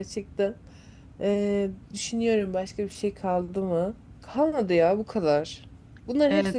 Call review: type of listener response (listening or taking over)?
listening